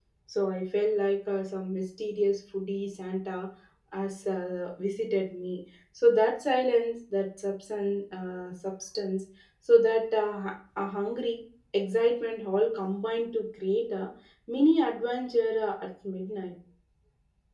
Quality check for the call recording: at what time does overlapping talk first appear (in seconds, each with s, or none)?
none